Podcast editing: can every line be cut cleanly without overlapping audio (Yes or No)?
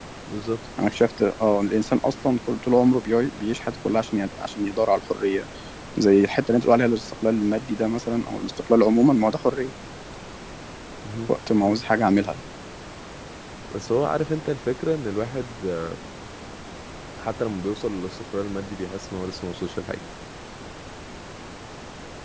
Yes